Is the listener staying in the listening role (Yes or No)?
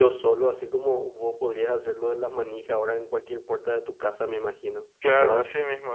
No